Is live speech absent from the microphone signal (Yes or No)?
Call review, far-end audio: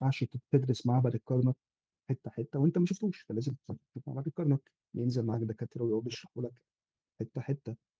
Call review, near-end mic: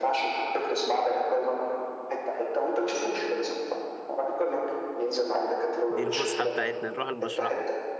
No